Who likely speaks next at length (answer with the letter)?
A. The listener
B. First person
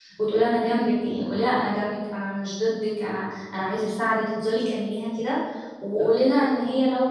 B